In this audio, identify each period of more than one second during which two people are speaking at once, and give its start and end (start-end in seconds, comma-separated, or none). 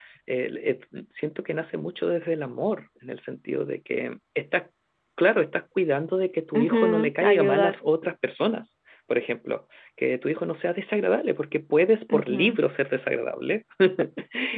6.5-7.8